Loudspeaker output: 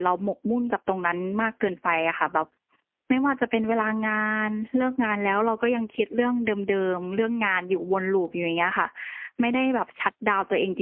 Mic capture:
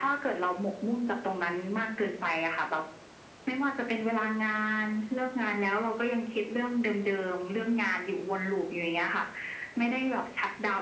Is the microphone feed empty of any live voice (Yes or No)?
Yes